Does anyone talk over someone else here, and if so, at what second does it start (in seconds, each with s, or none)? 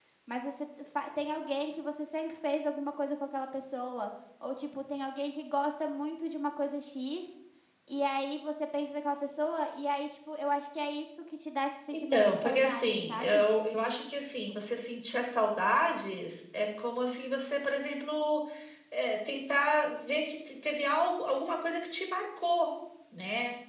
11.9 s